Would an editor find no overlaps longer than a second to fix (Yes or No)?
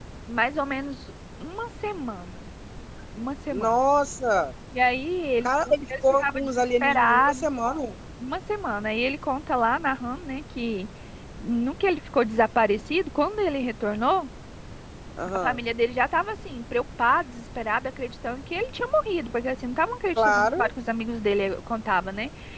No